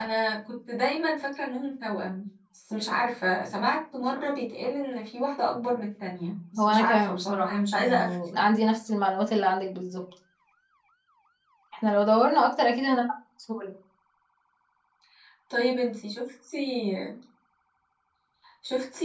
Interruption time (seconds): 7 s

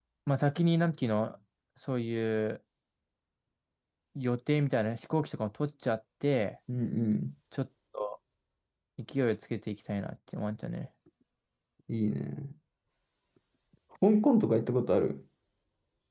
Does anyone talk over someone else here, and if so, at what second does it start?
none

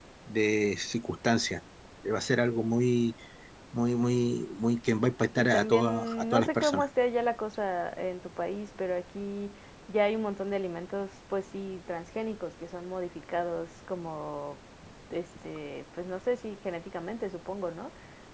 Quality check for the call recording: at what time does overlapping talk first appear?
5 s

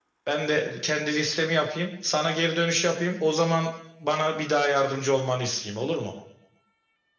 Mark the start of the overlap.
none

